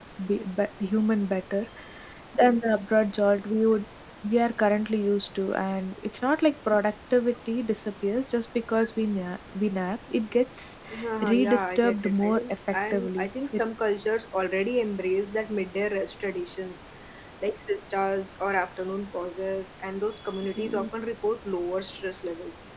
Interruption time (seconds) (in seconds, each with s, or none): 11.2 s